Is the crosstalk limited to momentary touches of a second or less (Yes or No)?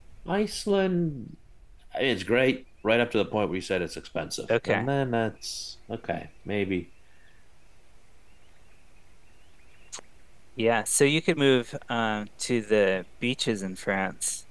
Yes